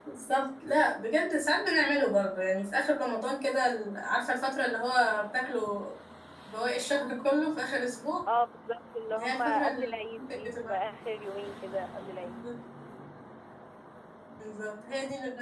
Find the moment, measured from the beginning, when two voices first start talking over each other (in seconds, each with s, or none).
9.1 s